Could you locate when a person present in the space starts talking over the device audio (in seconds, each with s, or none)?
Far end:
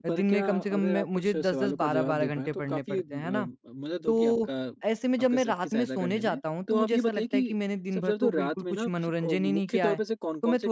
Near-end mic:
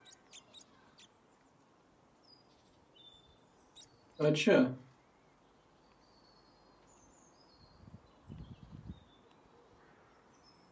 4.3 s